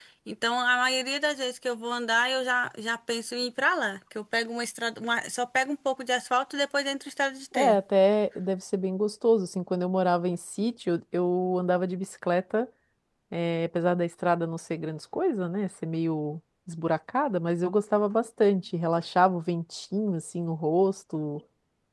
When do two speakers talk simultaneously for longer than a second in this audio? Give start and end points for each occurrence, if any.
none

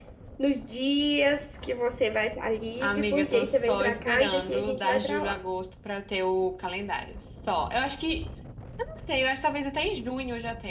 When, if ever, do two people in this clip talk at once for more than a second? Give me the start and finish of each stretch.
2.8-5.4

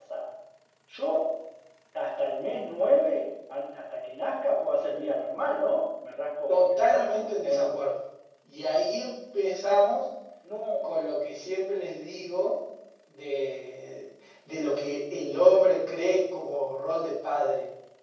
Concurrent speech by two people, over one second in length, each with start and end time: 6.5-7.8

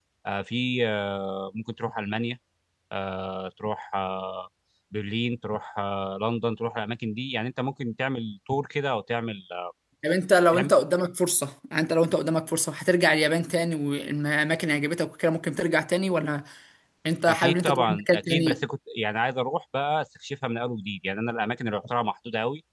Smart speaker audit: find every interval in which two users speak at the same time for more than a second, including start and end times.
17.3-18.6

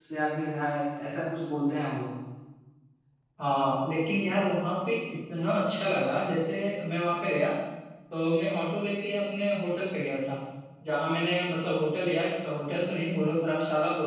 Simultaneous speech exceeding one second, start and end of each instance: none

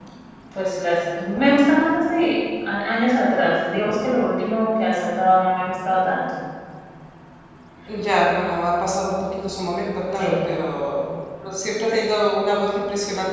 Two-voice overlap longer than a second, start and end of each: none

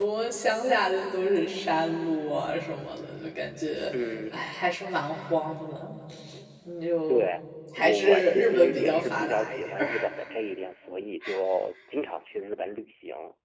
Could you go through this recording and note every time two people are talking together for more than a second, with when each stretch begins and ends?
7.8-9.9

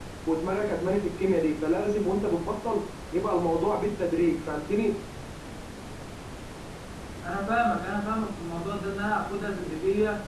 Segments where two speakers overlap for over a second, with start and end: none

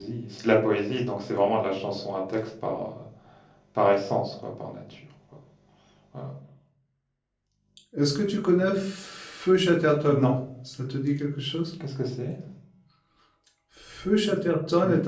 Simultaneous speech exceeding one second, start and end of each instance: none

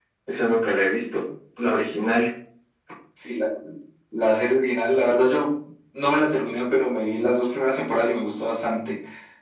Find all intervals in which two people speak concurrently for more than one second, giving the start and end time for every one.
none

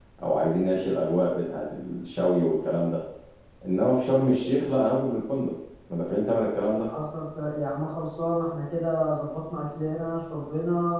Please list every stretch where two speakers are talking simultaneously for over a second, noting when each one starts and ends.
none

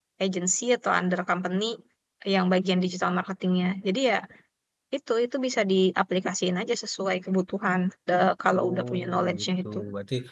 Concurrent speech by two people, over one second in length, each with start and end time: 8.6-9.8

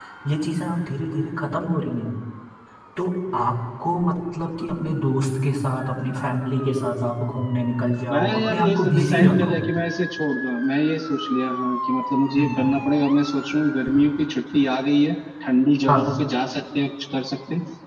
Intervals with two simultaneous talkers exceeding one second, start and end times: 8.1-9.6

